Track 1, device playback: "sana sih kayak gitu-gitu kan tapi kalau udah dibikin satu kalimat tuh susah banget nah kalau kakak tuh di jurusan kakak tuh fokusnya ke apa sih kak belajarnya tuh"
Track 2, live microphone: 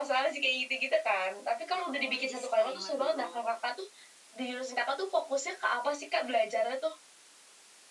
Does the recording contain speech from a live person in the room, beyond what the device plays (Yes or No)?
Yes